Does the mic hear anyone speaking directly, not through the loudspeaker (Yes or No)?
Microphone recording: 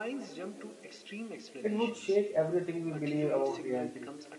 Yes